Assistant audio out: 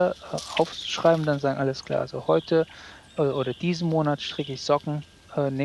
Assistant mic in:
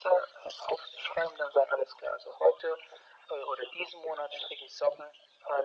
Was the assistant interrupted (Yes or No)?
No